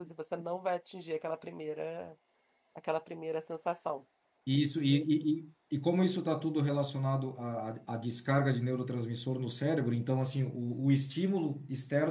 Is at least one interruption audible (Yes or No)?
No